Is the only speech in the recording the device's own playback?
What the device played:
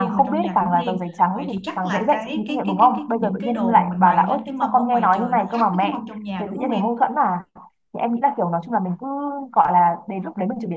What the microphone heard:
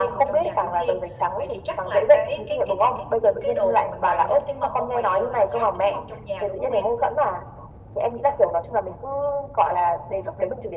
Yes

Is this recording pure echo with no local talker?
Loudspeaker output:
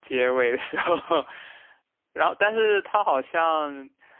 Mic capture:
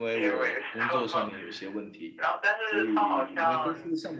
No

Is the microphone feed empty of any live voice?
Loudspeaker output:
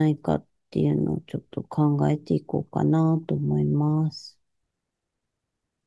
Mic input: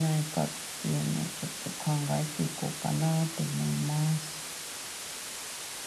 Yes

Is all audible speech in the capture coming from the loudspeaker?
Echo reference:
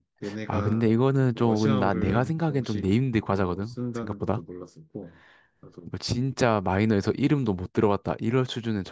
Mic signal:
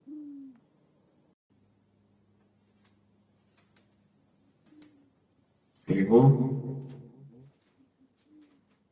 No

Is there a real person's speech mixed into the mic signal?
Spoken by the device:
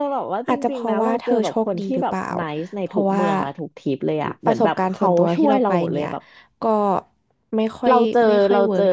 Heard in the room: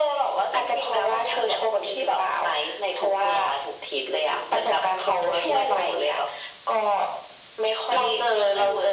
No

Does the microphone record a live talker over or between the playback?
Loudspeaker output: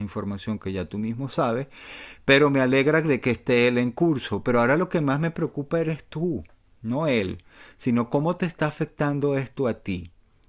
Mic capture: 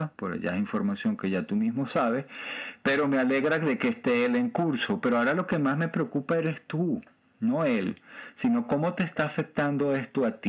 No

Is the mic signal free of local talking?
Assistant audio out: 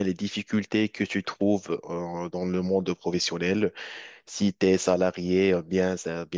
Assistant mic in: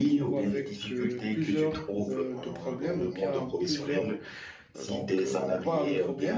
No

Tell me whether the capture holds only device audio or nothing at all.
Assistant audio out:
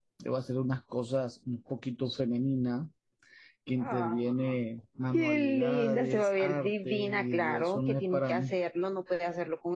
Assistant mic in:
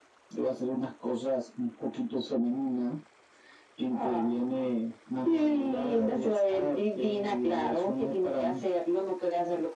Yes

